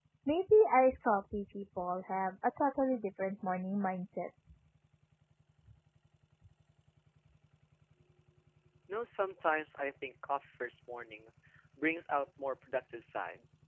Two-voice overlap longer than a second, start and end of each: none

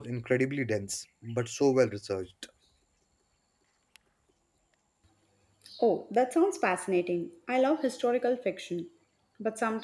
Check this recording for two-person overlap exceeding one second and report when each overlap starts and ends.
none

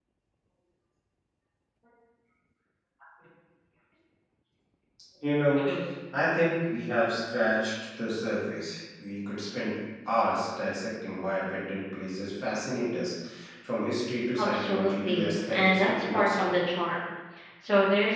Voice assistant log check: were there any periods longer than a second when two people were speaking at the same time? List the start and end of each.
14.4-16.6

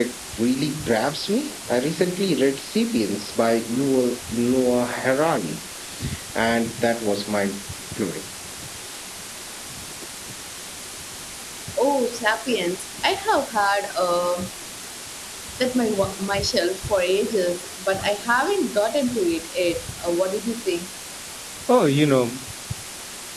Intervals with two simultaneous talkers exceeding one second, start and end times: none

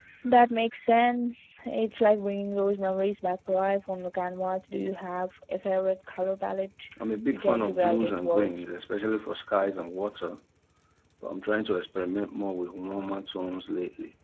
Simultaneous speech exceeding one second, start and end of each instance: 7.3-8.5

